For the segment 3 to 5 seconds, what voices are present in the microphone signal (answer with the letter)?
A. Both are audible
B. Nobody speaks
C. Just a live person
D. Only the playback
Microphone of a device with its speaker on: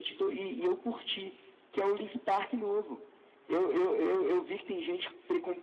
D